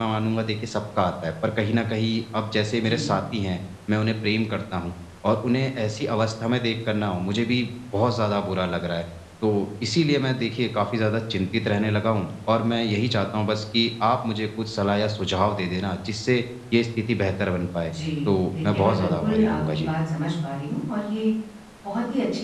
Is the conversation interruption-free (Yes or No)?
No